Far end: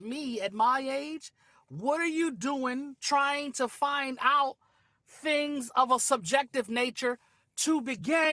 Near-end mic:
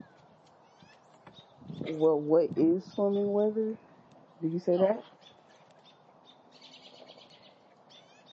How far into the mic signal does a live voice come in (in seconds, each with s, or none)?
1.8 s